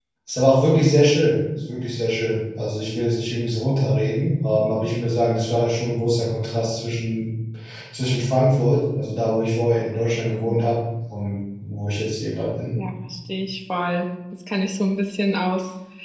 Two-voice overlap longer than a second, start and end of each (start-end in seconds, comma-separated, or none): none